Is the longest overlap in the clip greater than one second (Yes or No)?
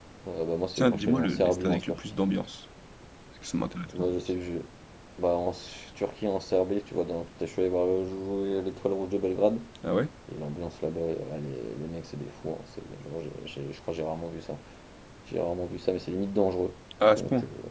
Yes